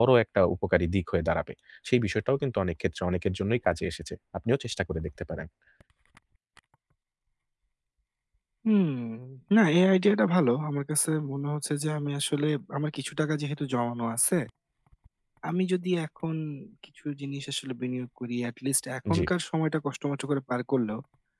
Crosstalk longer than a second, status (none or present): none